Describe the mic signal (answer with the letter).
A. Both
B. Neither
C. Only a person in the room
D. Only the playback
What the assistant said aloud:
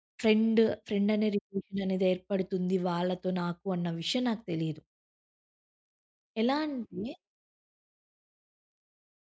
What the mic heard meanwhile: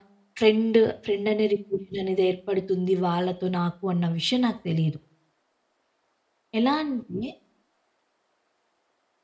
D